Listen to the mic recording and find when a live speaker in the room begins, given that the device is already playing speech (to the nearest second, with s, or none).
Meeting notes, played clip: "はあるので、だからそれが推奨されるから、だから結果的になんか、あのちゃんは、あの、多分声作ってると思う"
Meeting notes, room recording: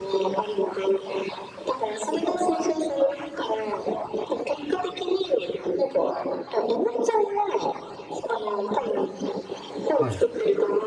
10 s